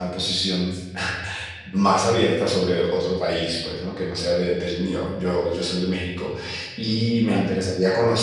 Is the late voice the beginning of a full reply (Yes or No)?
No